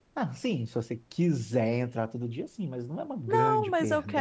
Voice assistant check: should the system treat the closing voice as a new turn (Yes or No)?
Yes